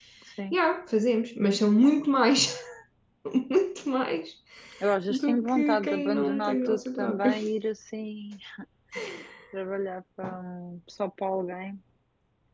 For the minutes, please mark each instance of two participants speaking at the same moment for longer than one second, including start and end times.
5.1-7.3

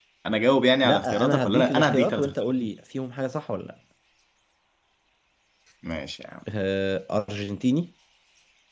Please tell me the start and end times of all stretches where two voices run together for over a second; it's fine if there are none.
0.8-2.6

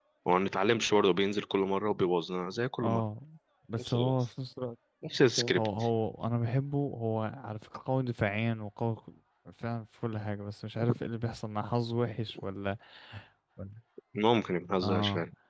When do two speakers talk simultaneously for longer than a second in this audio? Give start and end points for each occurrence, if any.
none

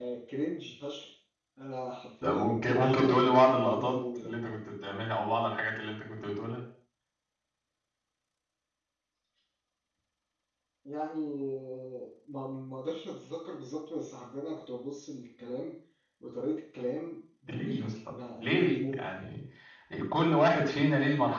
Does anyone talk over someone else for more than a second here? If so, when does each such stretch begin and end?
2.2-4.3, 17.5-19.1

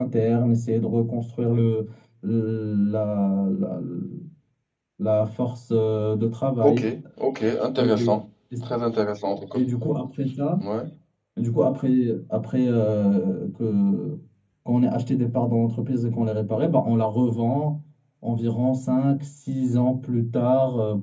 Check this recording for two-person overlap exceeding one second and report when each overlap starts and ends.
none

